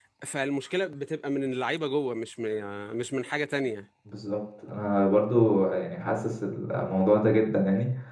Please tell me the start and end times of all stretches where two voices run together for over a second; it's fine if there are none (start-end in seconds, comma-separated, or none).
none